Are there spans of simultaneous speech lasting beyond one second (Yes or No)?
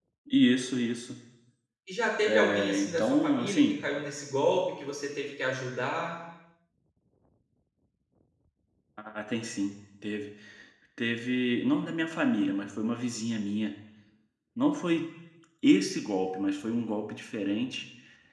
Yes